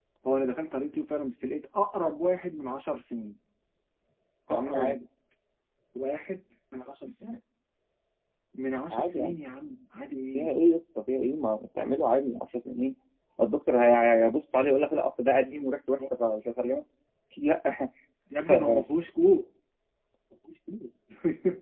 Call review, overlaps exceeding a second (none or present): none